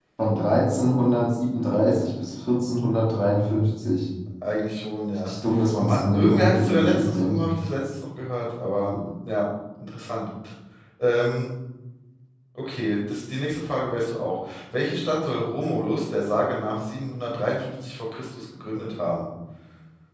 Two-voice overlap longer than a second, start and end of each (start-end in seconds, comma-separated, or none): 5.8-7.4